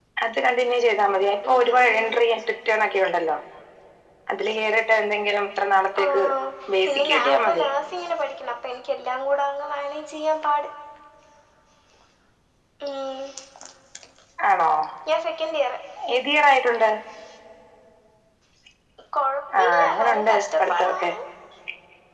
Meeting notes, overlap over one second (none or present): present